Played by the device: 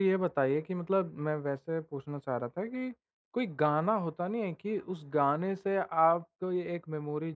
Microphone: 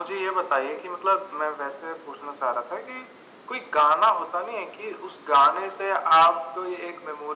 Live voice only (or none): none